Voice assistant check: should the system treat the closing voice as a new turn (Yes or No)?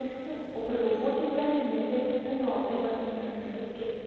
No